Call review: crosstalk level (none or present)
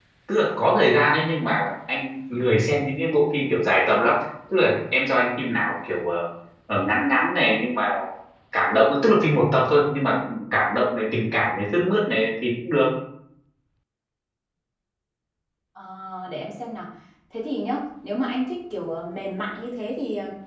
none